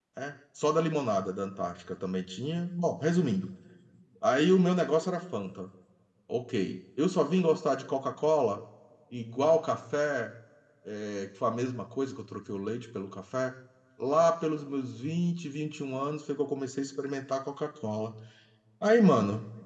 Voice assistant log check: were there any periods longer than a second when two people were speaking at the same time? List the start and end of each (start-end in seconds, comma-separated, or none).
none